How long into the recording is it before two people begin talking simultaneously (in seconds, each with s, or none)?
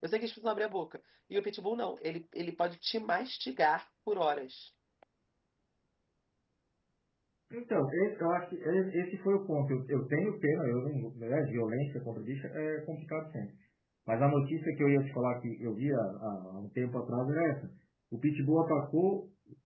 none